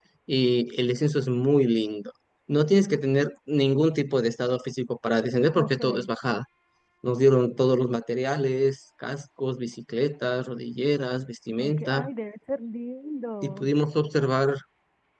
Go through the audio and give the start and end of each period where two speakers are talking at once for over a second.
none

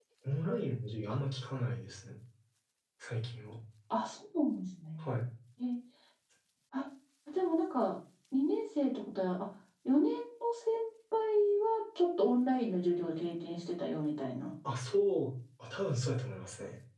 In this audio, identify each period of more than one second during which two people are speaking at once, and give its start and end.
none

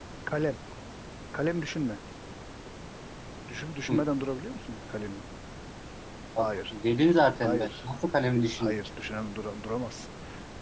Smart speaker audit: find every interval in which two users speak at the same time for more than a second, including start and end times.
none

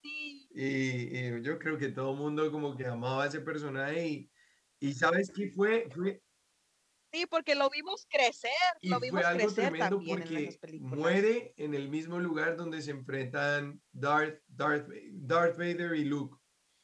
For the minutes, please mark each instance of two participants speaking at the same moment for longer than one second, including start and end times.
8.9-11.2

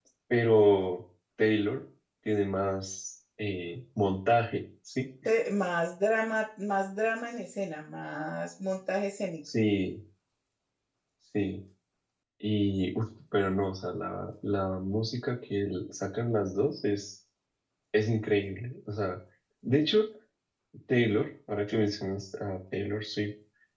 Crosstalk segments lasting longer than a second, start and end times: none

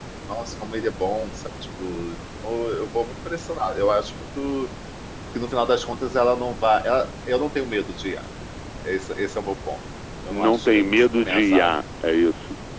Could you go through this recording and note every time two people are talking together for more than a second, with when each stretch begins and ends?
10.3-11.7

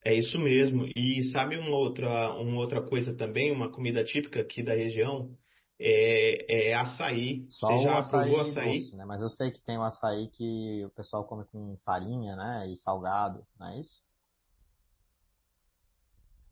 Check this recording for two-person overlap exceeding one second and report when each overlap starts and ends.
7.7-8.9

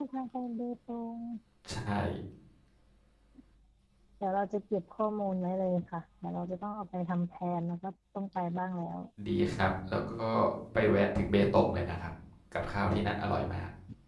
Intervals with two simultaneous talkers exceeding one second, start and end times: none

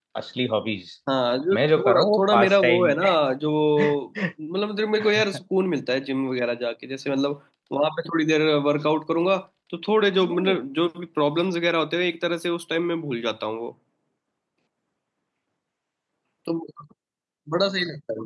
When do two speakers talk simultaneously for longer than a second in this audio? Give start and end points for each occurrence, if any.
1.5-2.9

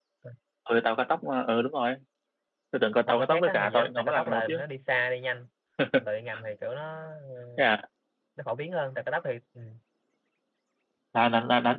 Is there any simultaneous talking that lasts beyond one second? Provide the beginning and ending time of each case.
3.1-4.6

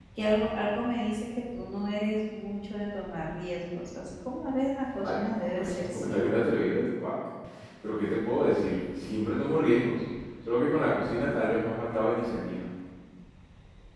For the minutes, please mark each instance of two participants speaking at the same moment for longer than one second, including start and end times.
5.0-6.2

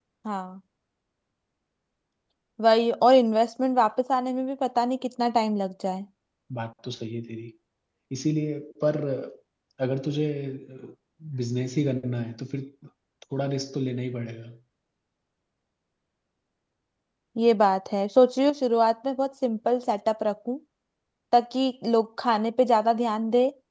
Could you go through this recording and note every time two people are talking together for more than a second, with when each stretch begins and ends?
none

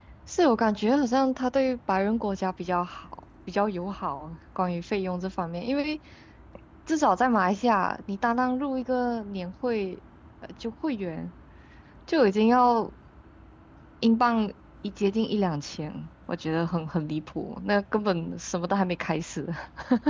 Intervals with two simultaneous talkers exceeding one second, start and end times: none

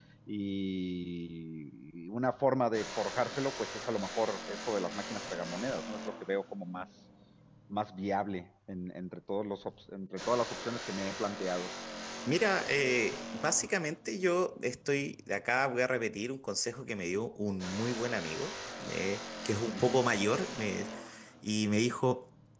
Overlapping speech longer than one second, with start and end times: none

